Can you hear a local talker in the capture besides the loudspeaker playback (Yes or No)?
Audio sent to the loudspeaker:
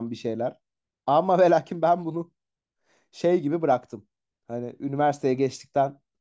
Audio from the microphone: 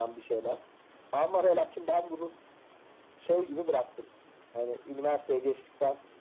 No